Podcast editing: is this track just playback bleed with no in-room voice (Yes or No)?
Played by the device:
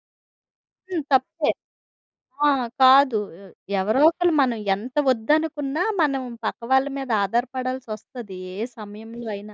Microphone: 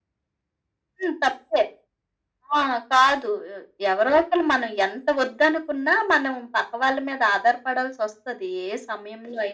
Yes